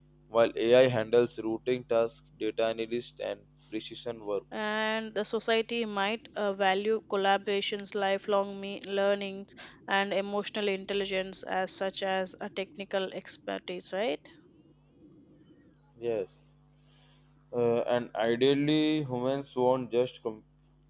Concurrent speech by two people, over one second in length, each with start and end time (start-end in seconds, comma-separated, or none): none